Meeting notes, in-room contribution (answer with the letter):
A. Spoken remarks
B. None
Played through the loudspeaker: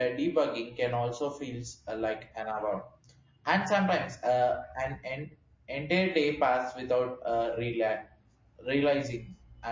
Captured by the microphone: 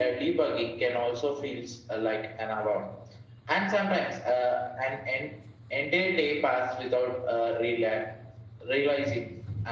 B